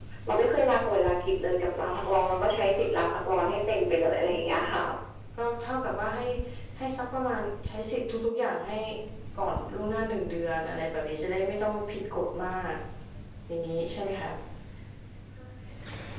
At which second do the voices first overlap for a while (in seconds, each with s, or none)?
none